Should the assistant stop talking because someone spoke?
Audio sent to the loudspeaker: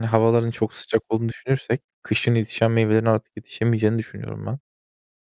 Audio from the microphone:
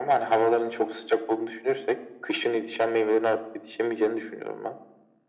No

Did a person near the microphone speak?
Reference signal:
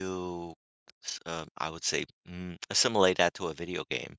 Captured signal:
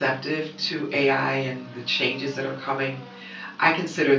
Yes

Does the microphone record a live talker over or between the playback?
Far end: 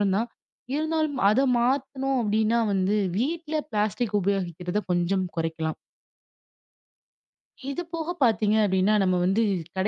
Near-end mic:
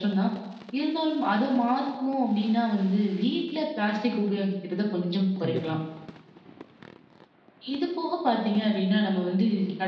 Yes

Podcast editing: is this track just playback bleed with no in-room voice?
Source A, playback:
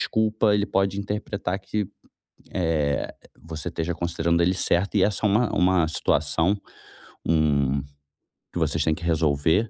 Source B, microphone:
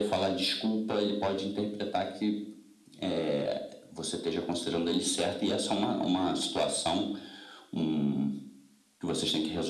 Yes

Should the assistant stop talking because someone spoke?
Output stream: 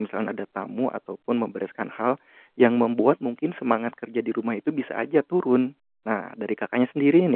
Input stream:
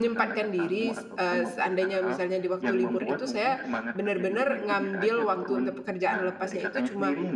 Yes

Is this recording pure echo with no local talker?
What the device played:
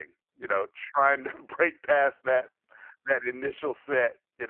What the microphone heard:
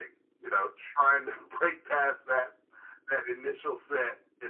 Yes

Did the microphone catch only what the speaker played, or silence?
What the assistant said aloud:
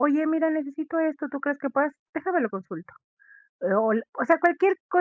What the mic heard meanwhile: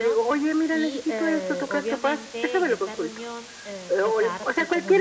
No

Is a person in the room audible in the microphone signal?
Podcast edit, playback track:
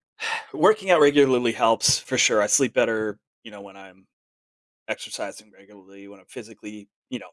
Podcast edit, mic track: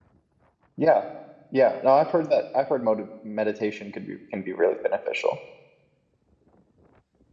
Yes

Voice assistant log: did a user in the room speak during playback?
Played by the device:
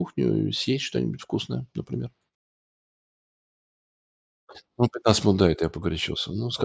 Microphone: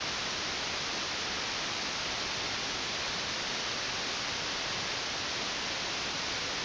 No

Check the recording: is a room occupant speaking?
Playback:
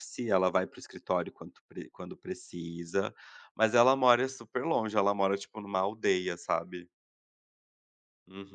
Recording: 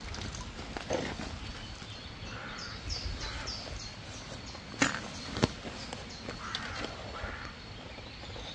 No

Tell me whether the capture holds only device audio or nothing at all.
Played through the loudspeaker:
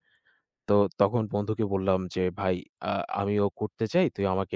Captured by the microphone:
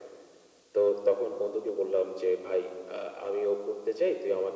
Yes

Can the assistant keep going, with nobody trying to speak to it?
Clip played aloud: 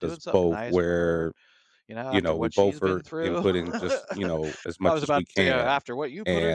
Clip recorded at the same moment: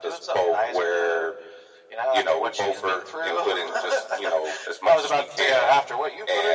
Yes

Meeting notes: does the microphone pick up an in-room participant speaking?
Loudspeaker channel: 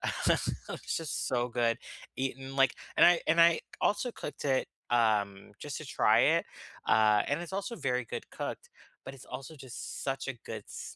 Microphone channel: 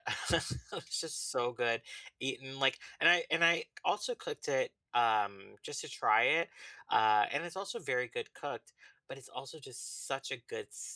No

